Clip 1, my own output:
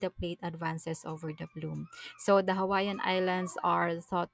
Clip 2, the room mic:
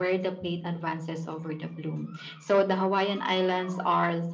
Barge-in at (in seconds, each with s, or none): none